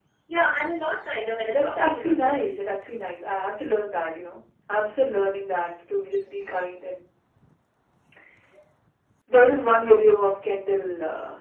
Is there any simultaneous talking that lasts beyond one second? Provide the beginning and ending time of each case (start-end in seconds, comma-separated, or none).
1.2-2.5